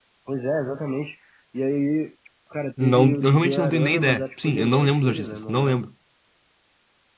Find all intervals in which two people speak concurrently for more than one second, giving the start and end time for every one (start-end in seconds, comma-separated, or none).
2.8-5.8